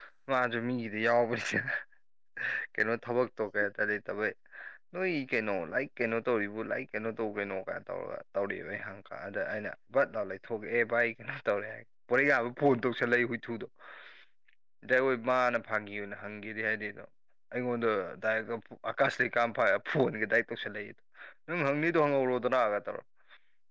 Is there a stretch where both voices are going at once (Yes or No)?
No